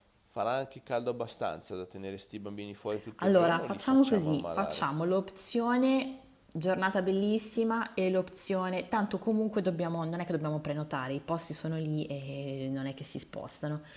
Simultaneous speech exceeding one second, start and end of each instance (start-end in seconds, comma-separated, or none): 3.2-4.9